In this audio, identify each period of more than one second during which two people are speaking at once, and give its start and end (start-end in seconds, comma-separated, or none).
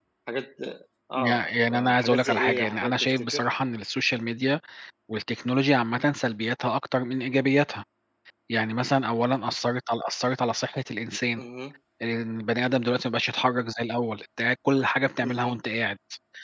1.2-3.4